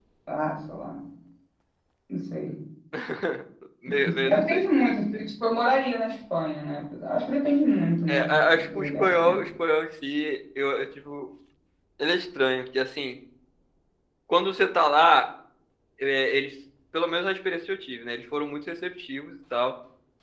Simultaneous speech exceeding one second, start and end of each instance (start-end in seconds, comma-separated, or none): 8.1-9.3